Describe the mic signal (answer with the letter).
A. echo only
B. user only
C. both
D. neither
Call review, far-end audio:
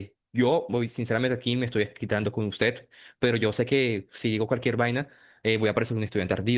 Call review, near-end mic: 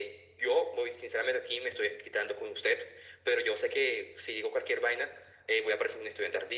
A